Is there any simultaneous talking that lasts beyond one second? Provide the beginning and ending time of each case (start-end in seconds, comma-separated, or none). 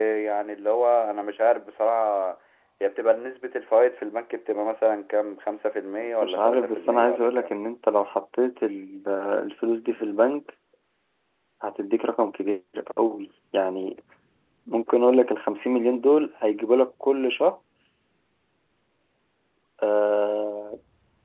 6.2-7.6